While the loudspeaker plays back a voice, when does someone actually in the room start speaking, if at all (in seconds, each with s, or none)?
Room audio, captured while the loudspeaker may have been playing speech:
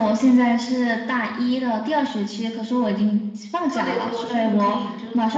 3.7 s